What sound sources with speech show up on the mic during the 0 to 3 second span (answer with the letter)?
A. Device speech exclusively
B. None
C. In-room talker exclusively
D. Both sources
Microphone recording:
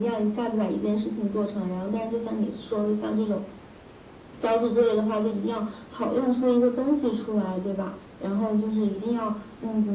A